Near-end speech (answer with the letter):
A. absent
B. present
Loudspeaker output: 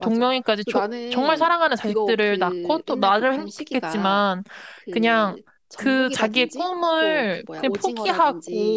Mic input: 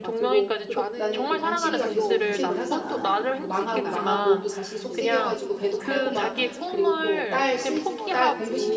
B